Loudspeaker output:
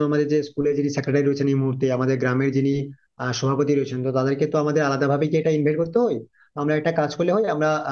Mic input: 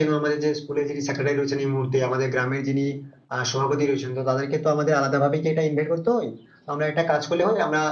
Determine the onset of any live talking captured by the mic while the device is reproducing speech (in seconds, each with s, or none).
none